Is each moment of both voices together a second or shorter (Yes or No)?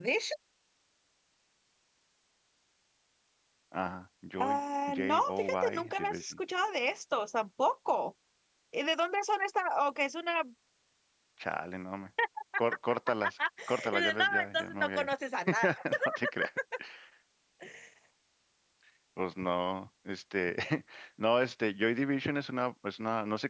No